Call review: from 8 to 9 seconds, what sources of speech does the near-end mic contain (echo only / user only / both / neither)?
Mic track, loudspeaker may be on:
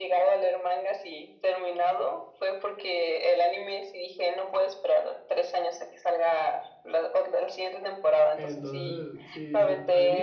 both